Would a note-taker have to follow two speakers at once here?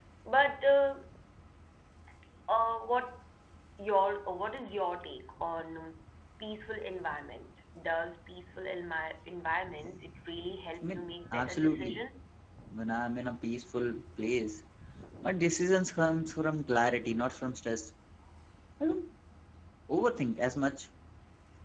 Yes, from 10.8 s

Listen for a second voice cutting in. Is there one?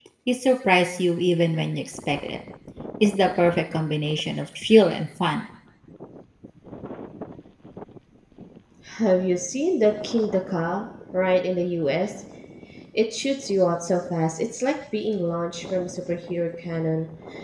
No

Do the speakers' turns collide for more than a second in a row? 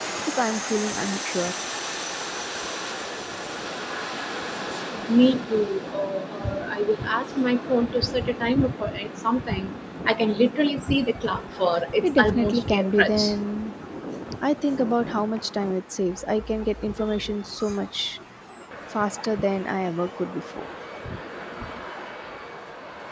Yes, from 12.0 s

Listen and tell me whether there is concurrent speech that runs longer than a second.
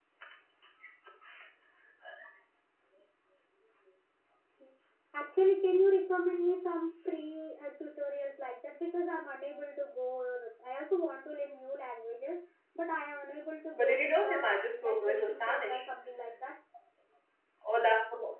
Yes, from 13.7 s

